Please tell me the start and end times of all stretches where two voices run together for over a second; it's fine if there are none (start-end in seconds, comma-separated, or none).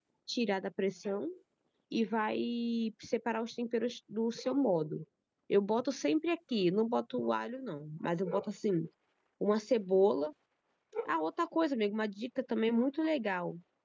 none